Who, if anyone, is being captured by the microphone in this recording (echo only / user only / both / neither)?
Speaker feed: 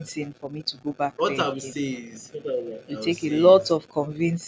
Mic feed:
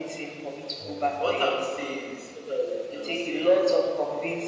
both